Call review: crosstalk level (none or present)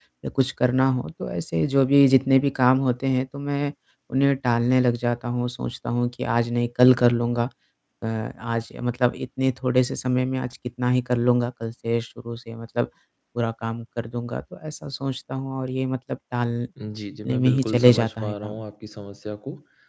present